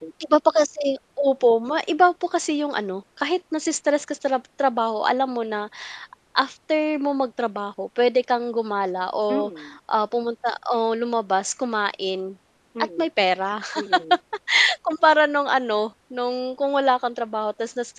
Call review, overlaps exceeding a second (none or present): none